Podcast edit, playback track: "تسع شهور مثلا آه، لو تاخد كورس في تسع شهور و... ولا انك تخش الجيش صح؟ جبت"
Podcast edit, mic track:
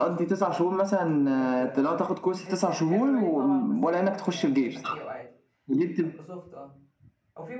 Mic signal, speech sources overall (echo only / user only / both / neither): both